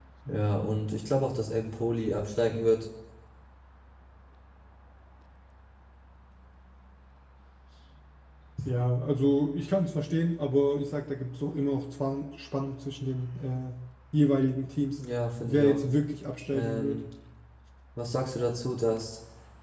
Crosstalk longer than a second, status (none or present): none